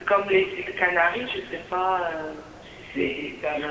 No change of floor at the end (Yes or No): No